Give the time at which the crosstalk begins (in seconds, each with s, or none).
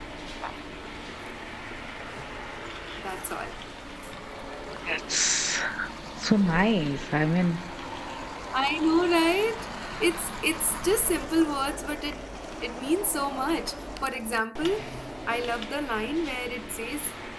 none